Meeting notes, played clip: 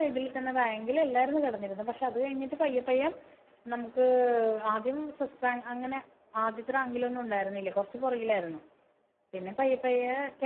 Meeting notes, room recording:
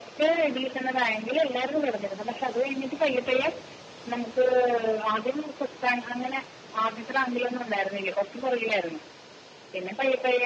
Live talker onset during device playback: none

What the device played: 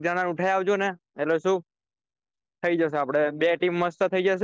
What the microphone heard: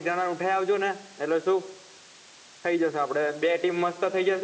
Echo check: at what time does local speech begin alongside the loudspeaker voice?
none

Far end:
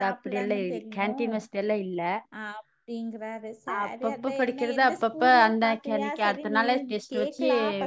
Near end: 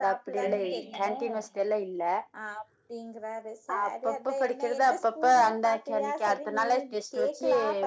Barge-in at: 0.4 s

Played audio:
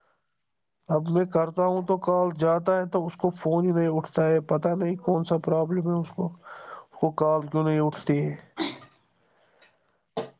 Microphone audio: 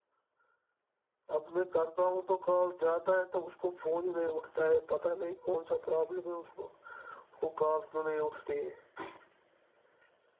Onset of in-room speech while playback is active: none

